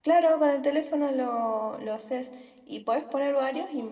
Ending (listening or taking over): listening